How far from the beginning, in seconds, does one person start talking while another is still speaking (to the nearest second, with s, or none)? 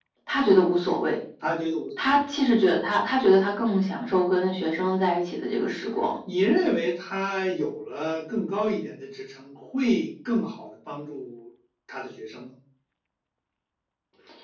none